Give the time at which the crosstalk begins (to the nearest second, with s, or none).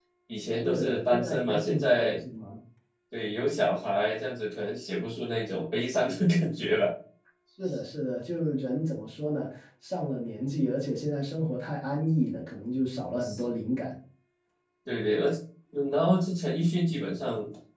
1 s